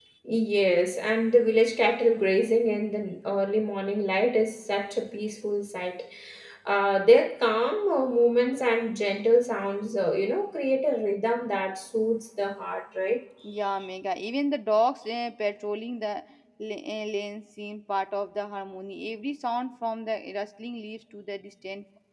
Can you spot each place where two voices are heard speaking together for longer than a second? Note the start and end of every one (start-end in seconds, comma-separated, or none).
none